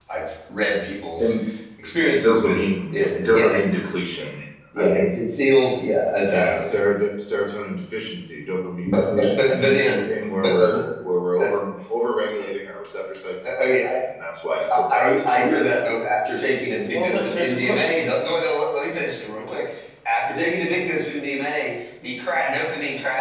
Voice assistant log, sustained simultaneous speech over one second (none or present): present